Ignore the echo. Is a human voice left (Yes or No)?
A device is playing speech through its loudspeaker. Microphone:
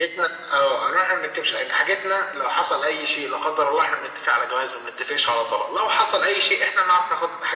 No